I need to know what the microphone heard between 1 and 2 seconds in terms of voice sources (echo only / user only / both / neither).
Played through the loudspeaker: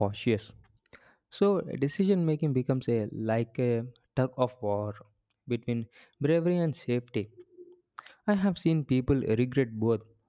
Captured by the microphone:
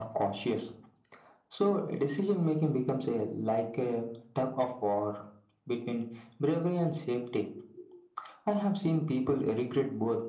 echo only